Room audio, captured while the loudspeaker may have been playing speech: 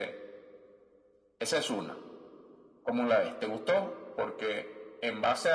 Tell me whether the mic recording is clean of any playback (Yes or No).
No